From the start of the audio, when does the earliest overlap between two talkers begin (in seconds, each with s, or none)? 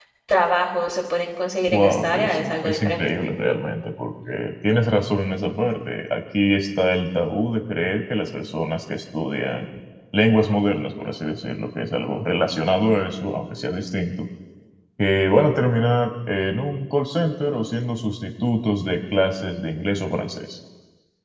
1.7 s